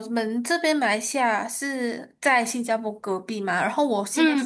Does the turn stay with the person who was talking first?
Yes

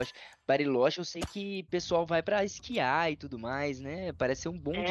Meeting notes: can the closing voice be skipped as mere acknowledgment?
No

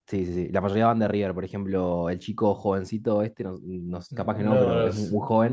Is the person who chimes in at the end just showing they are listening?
Yes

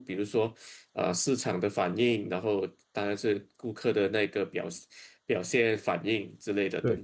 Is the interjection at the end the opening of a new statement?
Yes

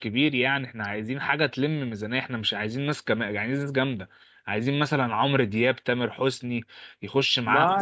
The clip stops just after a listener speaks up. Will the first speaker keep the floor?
Yes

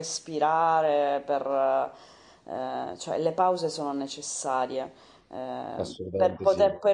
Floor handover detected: No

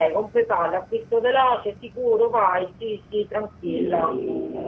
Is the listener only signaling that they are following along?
No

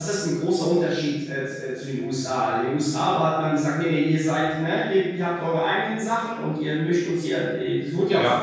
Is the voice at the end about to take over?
Yes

